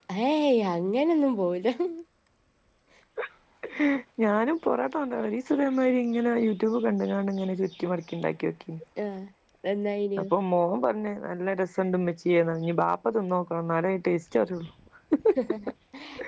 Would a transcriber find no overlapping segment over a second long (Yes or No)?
Yes